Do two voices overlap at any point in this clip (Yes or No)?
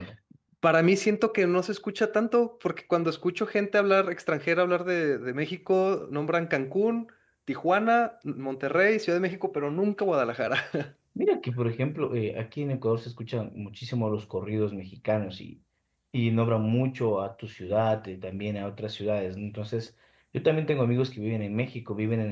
No